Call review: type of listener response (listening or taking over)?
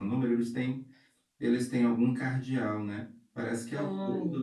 listening